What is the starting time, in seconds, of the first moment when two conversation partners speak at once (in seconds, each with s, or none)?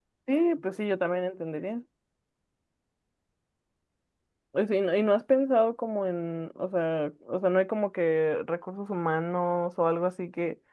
none